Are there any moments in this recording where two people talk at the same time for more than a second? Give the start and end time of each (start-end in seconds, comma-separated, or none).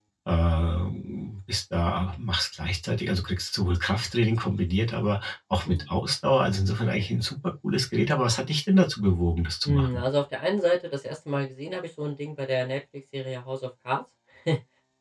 none